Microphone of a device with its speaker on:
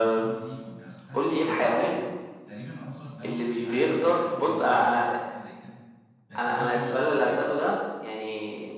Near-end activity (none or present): present